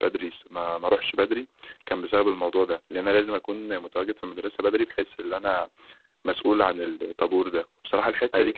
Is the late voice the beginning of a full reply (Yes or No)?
No